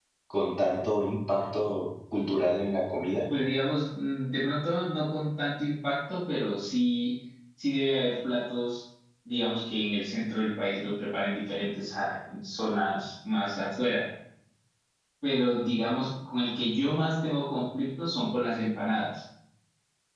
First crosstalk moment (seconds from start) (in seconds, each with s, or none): none